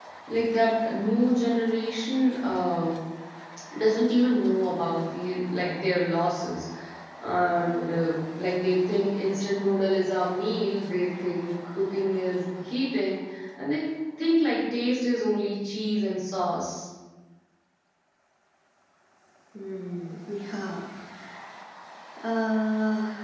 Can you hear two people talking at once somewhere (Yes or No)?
No